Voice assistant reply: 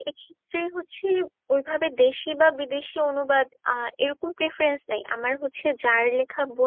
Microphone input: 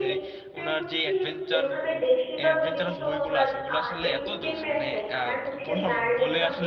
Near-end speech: present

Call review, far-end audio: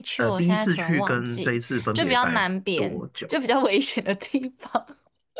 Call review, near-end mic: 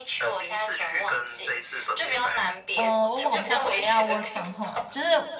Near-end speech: present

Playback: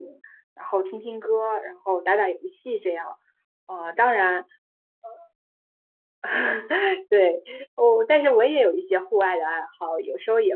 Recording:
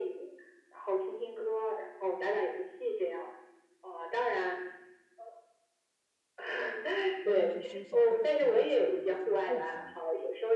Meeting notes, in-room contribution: present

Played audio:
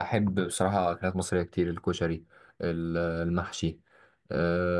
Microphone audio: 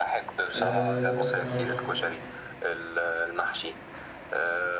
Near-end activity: present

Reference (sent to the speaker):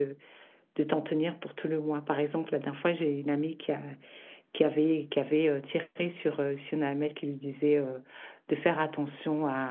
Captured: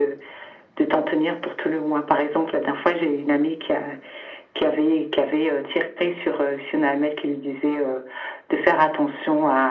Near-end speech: none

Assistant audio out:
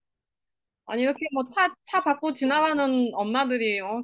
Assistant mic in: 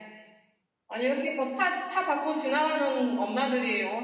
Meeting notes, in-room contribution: none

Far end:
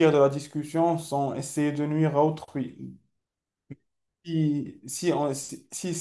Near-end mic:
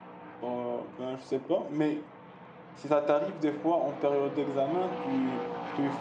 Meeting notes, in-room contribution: present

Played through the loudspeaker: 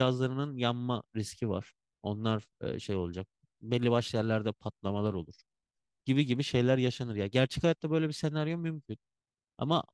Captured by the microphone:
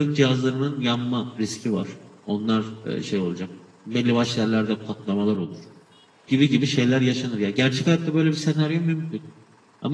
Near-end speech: none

